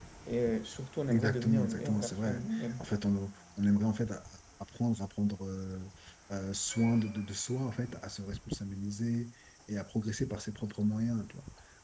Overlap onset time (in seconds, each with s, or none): 1.1 s